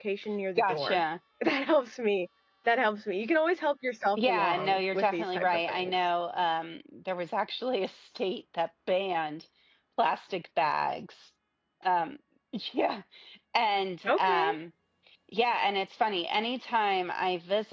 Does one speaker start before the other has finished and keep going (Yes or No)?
Yes